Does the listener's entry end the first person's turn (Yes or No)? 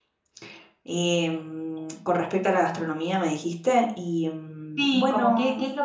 Yes